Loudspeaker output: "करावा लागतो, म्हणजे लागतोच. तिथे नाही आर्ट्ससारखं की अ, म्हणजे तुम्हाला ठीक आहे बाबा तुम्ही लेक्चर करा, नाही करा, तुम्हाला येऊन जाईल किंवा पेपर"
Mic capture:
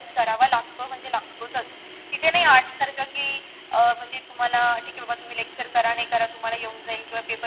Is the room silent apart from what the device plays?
Yes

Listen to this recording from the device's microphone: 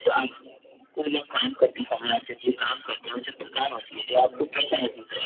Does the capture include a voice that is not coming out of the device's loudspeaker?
No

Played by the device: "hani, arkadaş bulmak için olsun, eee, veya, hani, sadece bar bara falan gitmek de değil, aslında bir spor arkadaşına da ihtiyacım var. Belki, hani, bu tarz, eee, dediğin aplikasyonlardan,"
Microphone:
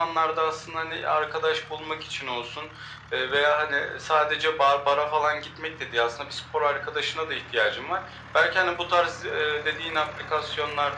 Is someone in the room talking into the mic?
No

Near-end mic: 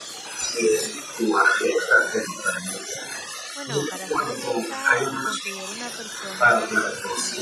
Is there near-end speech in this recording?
Yes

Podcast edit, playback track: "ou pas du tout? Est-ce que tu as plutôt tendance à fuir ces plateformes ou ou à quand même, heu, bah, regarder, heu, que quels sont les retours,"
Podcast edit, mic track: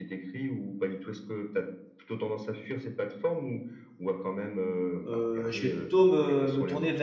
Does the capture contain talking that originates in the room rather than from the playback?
Yes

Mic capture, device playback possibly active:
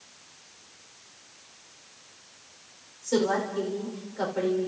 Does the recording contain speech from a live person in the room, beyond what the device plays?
Yes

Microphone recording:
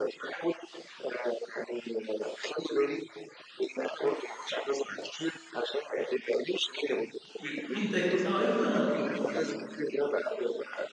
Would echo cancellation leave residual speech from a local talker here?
Yes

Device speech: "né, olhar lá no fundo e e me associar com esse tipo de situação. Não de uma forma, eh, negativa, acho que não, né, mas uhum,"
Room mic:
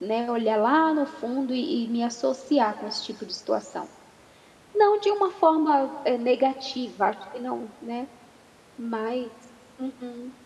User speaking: No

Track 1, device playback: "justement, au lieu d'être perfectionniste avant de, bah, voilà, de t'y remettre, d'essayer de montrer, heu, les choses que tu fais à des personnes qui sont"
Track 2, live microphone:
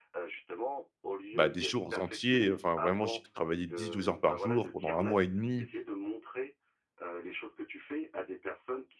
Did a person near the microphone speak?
Yes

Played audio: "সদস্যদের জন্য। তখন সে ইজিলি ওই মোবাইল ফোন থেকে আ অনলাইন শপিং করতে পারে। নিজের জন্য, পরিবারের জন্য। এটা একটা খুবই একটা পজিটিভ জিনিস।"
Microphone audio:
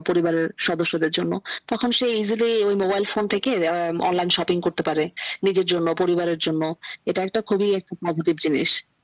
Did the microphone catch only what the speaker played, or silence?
Yes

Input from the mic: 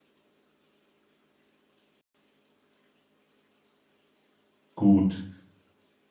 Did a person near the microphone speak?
Yes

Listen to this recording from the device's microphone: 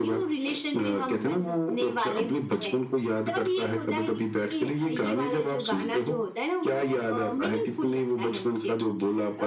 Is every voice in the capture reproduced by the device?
Yes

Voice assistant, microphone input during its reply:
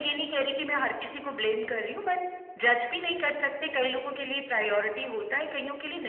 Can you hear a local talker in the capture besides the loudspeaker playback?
No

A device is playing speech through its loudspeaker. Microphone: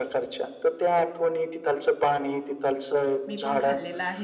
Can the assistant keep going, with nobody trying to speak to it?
No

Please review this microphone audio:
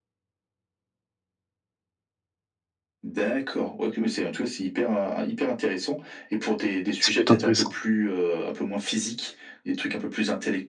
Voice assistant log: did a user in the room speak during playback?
Yes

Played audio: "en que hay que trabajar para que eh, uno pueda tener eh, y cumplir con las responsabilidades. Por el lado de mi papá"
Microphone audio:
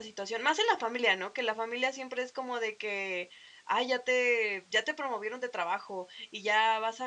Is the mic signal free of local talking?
No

